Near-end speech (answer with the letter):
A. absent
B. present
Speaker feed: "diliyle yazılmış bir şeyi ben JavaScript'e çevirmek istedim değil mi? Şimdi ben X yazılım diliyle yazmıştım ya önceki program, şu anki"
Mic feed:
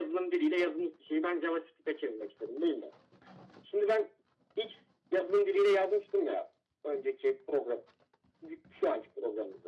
A